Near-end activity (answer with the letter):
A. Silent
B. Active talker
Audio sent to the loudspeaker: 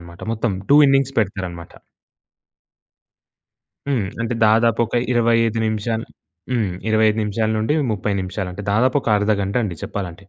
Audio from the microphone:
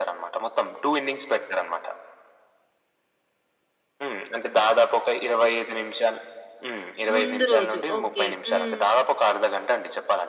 B